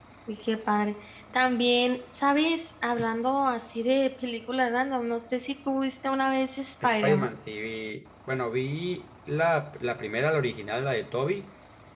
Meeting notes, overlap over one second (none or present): none